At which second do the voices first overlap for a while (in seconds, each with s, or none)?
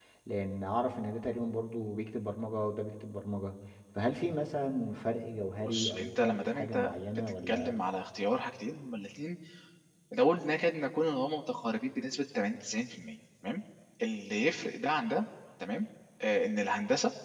5.7 s